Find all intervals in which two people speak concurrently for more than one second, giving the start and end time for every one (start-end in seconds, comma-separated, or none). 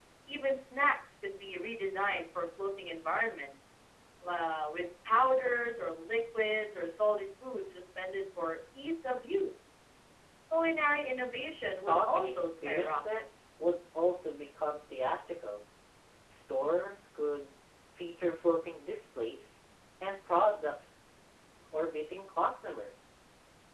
11.9-13.2